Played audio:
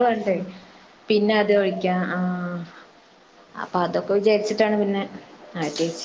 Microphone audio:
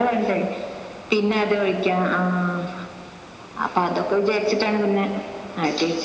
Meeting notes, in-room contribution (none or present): none